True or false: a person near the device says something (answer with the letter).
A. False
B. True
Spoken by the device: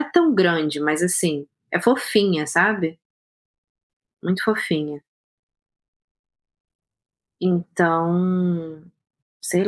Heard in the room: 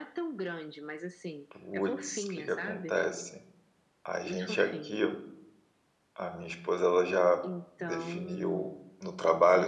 B